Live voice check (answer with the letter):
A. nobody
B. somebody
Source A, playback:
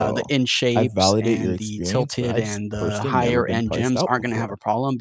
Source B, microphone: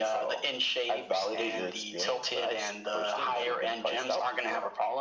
A